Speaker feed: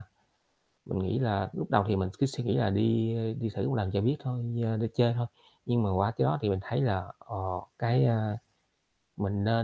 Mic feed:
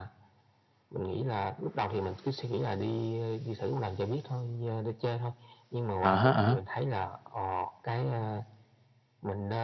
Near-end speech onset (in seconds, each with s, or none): 6.0 s